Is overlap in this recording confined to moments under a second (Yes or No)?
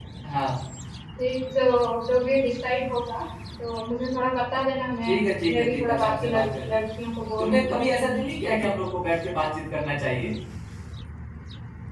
No